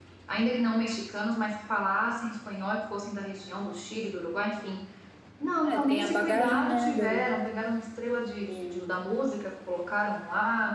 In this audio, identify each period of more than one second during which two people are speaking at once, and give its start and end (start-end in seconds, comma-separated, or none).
5.6-7.3